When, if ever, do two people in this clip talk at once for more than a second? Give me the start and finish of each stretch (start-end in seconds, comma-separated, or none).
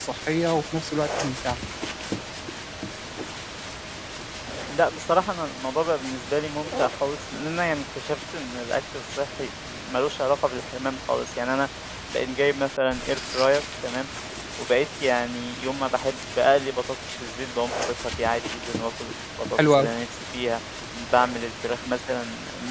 none